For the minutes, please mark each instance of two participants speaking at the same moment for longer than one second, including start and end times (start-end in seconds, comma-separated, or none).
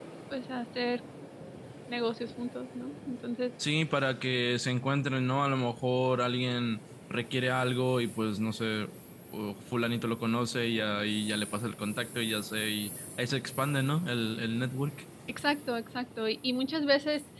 none